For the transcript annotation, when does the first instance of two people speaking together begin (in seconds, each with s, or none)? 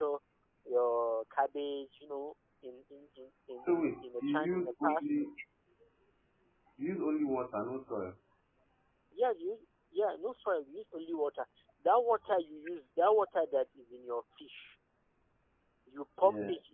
3.6 s